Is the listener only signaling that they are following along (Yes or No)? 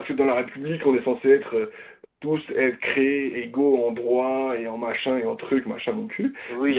No